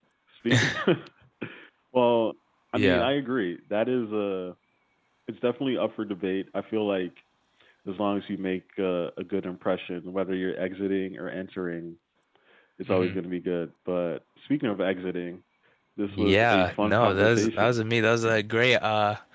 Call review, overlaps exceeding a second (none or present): present